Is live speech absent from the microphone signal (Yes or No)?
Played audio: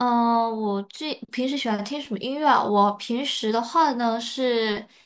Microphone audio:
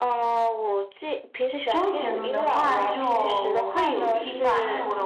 No